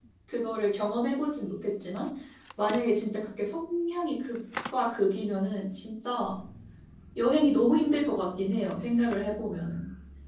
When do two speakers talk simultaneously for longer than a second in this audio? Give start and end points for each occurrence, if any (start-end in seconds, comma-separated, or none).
none